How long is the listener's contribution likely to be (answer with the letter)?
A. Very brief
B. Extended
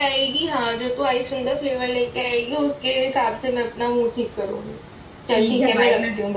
B